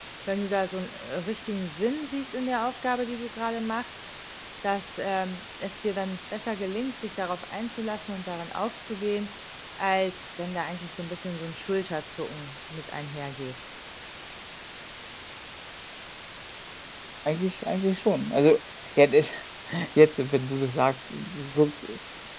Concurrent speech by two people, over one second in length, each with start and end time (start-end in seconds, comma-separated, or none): none